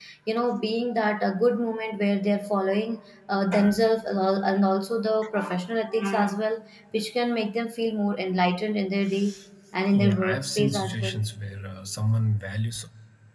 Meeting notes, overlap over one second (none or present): present